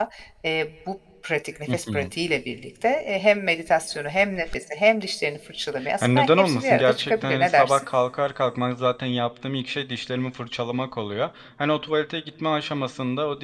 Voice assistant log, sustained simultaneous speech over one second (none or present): present